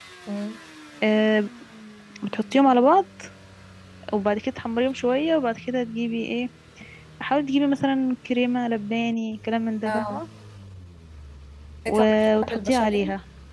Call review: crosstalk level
present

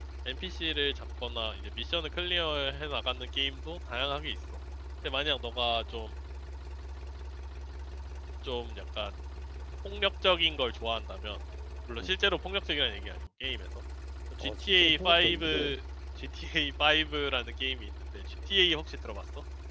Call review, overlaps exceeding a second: present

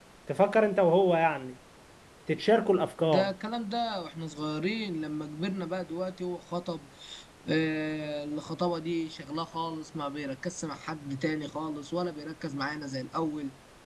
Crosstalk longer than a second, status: none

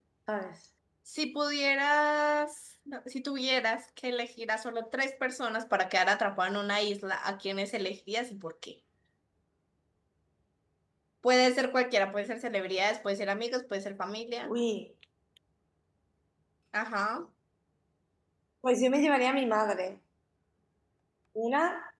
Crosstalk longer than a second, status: none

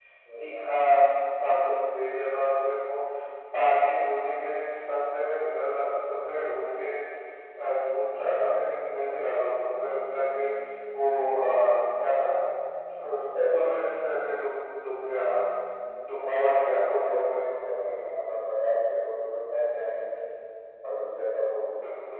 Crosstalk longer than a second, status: present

